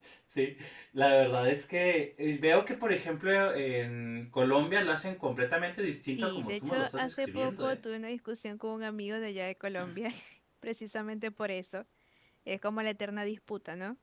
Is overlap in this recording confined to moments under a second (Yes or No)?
No